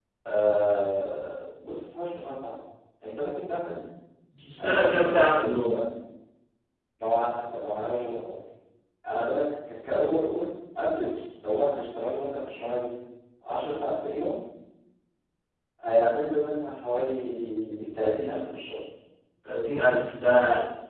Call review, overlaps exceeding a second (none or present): present